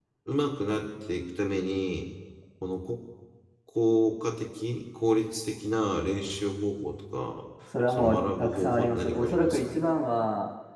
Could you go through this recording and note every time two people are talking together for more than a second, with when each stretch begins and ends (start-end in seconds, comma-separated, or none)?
7.9-9.8